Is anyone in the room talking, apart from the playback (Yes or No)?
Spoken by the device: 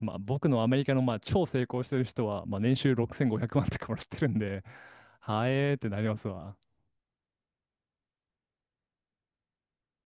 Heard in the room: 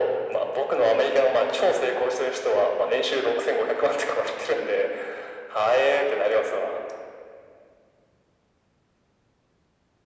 No